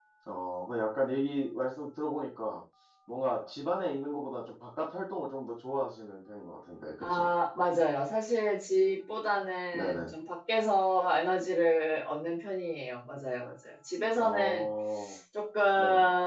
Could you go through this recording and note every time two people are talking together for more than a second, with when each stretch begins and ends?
none

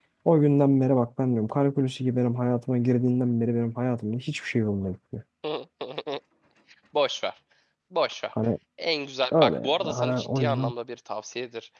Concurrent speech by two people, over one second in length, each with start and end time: 9.4-10.7

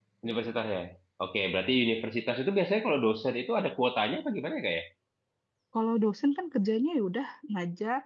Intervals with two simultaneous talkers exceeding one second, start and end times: none

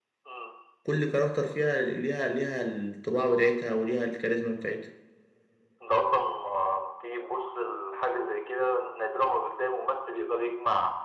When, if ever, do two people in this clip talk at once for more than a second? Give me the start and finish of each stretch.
none

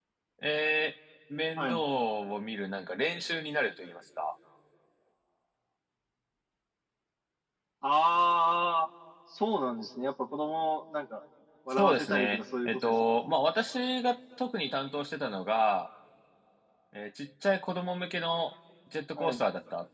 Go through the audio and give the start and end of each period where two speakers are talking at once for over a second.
11.7-12.9

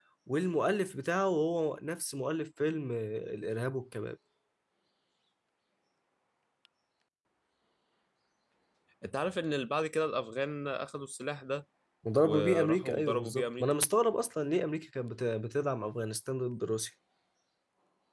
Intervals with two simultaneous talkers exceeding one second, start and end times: 12.2-13.6

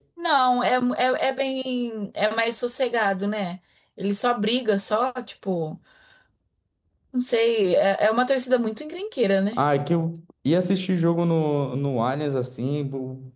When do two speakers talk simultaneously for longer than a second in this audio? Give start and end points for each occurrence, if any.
none

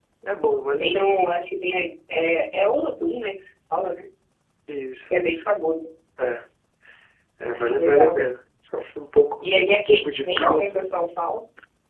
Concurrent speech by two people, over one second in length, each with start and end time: 9.4-10.7

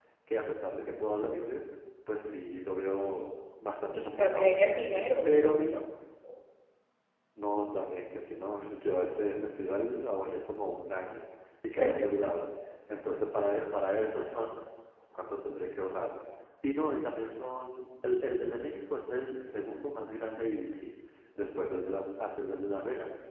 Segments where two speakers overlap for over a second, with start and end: 3.9-5.6

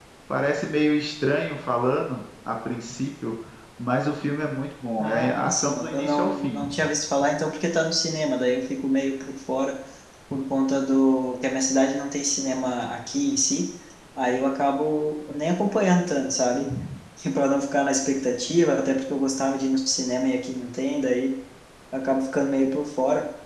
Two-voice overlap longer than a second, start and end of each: 5.0-6.6

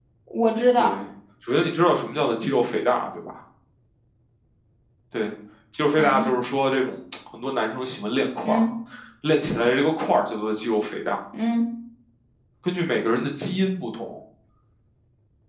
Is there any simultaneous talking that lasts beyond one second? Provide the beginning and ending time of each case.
none

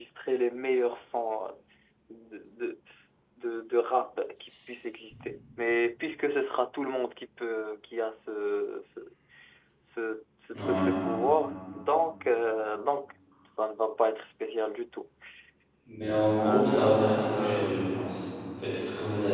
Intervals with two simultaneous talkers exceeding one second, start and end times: 16.4-17.7

